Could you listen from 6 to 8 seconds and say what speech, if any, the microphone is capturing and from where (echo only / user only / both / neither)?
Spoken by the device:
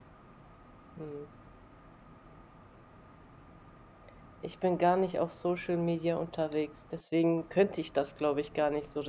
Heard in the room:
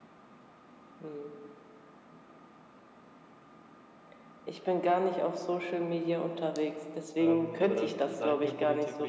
both